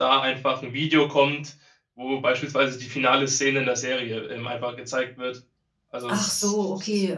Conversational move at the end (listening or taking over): taking over